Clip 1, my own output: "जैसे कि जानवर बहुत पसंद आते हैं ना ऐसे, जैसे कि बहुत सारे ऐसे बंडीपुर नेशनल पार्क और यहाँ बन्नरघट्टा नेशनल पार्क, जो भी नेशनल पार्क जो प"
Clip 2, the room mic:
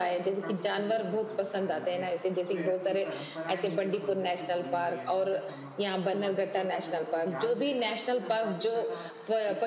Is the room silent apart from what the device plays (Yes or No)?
No